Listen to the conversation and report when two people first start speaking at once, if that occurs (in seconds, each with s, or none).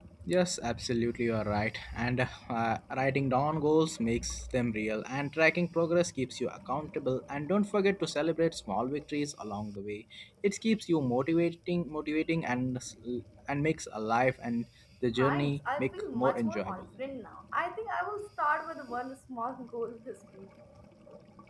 15.2 s